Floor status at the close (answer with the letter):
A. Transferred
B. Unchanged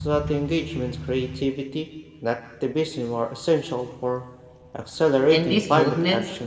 A